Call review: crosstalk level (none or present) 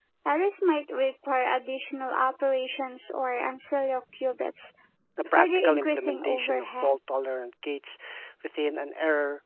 present